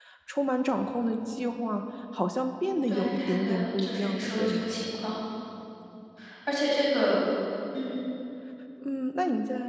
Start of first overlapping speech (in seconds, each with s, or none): 2.9 s